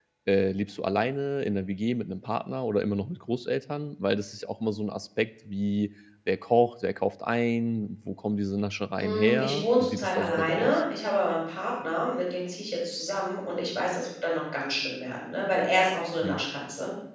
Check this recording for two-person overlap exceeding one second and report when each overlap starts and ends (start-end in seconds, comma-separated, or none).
9.0-10.8